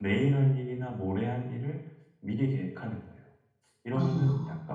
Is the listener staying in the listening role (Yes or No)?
Yes